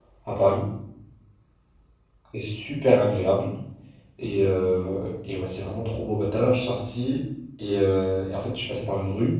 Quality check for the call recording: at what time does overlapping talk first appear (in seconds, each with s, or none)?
none